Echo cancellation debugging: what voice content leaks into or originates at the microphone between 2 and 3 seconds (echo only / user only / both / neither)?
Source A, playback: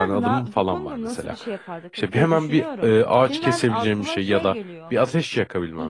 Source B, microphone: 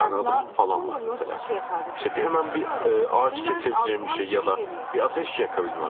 echo only